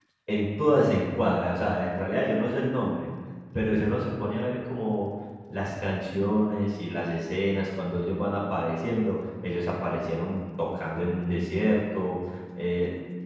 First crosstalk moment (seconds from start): none

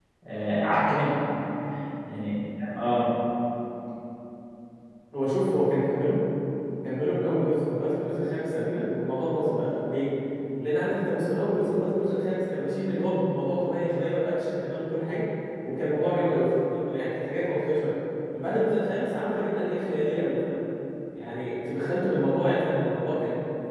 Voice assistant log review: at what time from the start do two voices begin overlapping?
none

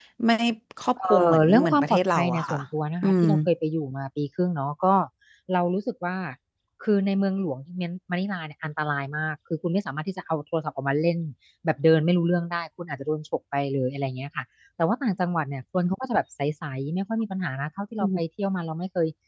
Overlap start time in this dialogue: 1.0 s

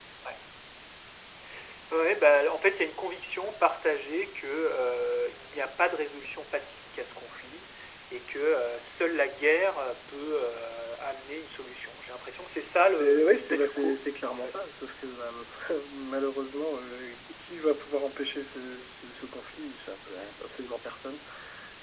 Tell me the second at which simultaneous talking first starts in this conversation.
13.0 s

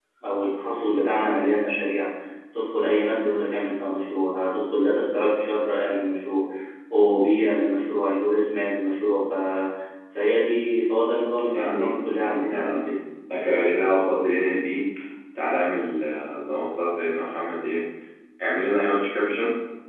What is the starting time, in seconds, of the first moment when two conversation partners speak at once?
11.5 s

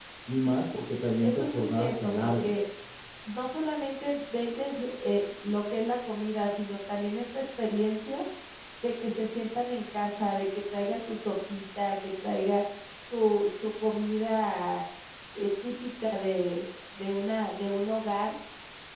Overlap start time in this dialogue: 1.2 s

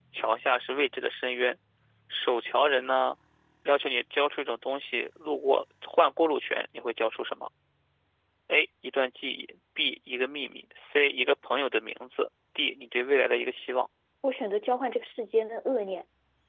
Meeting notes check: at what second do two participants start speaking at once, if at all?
none

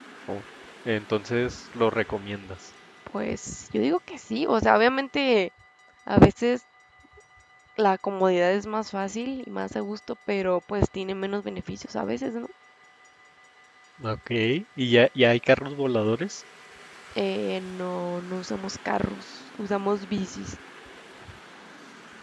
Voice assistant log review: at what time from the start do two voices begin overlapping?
none

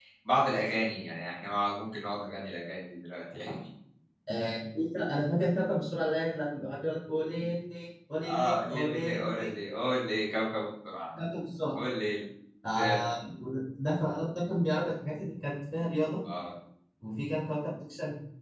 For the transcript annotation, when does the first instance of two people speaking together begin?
8.3 s

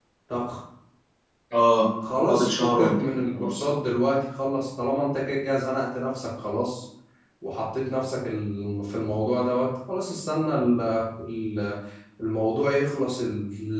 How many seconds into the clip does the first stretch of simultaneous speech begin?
2.3 s

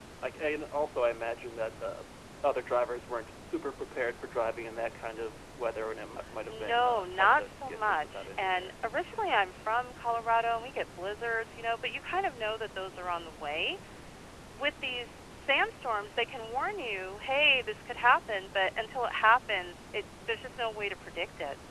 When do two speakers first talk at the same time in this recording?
6.5 s

